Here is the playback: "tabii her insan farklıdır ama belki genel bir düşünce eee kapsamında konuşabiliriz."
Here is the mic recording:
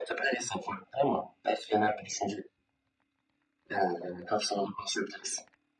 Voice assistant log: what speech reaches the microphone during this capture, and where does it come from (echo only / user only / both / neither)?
echo only